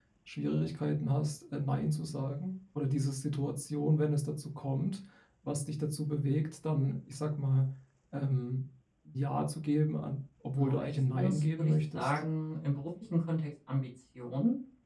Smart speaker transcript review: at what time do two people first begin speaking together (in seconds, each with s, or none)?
10.6 s